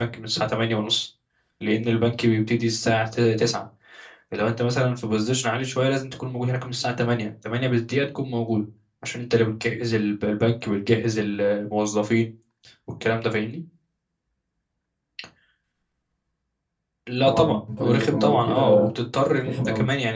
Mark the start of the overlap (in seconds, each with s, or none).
17.2 s